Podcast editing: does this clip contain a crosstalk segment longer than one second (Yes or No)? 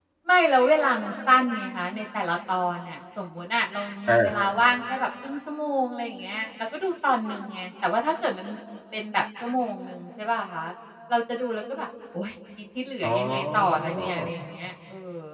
Yes